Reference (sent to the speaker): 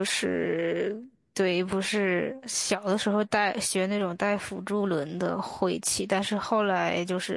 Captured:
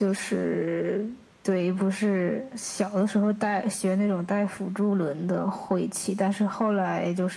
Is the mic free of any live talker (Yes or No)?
Yes